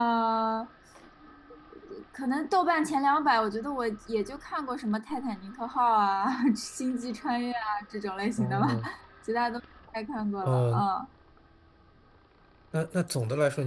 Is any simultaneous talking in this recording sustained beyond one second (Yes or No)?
No